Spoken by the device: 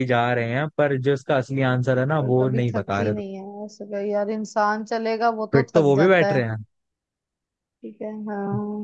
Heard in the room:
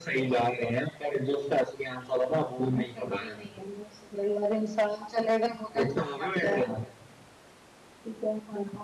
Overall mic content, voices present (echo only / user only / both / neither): echo only